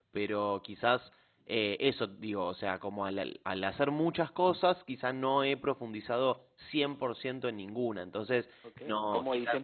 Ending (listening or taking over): taking over